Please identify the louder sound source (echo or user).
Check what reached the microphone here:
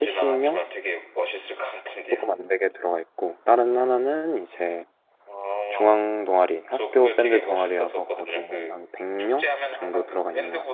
user